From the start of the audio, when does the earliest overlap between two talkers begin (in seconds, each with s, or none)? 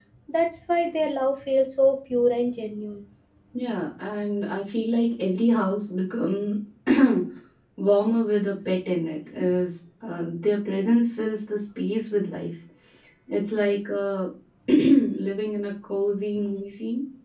none